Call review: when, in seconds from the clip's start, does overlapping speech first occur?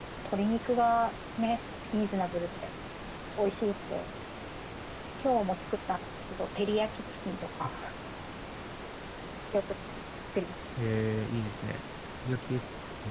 none

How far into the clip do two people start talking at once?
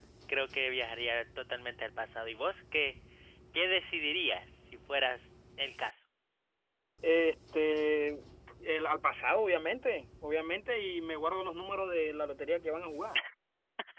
none

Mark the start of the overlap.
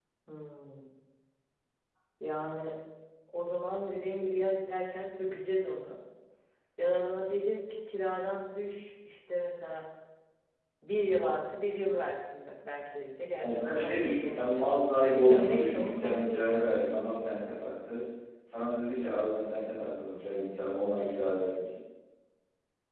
13.4 s

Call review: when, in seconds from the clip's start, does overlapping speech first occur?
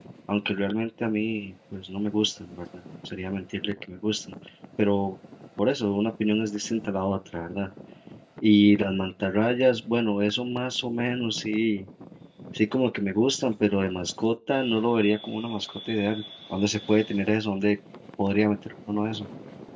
none

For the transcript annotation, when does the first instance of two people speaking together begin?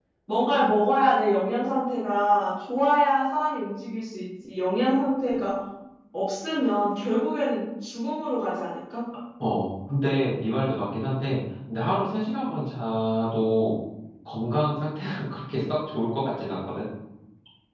none

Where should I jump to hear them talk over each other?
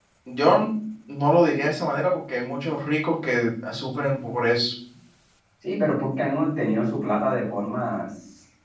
none

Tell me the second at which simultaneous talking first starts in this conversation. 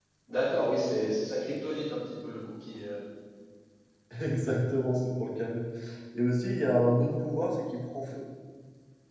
none

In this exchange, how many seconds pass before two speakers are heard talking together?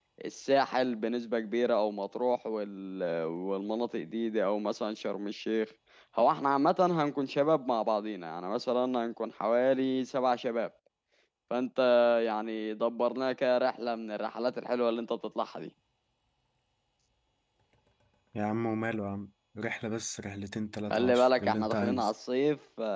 20.9 s

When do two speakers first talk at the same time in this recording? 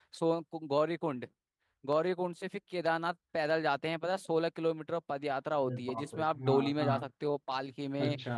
5.7 s

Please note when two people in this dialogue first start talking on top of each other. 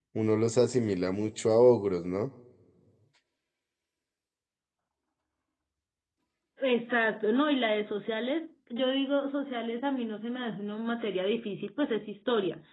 none

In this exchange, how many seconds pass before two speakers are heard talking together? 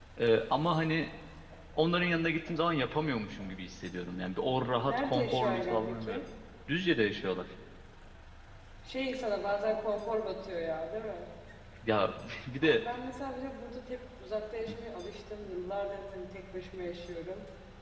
4.9 s

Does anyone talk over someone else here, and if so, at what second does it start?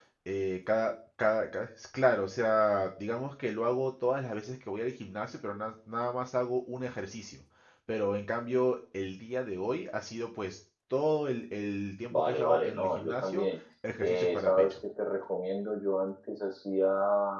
12.1 s

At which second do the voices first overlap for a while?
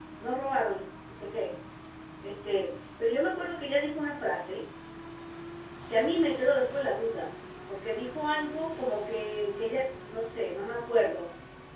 none

